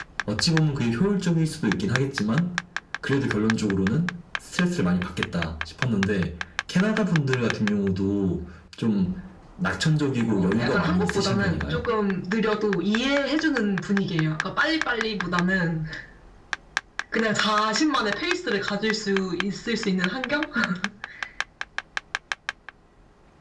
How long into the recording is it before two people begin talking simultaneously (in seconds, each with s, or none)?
10.3 s